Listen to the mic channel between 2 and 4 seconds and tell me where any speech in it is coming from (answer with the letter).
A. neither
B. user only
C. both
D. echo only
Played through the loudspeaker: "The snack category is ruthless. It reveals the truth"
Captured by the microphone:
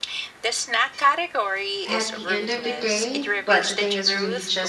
C